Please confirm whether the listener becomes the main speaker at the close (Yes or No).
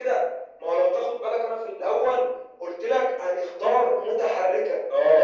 Yes